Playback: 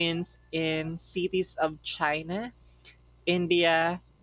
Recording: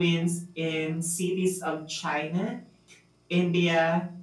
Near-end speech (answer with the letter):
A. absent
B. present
A